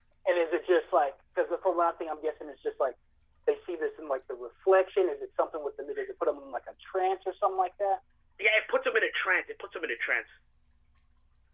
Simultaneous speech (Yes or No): No